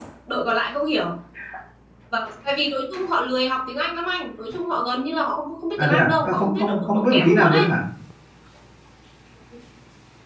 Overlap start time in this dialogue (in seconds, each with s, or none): 5.8 s